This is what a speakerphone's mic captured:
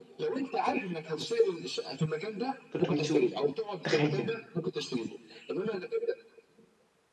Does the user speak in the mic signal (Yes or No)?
Yes